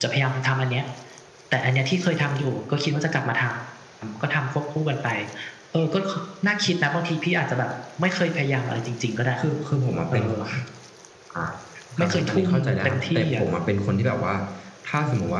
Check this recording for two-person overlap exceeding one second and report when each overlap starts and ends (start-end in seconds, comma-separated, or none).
12.0-13.4